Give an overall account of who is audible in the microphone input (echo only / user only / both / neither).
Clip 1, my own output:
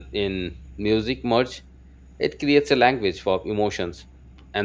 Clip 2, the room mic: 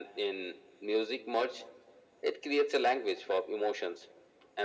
echo only